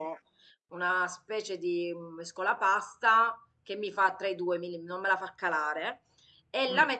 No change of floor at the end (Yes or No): Yes